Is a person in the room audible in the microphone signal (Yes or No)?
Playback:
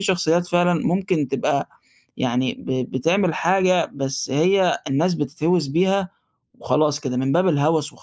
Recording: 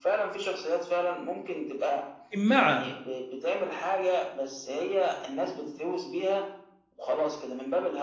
Yes